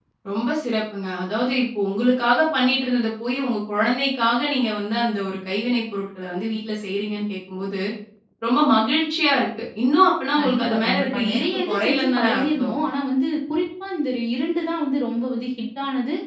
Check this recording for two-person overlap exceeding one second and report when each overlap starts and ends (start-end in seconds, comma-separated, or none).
10.4-12.7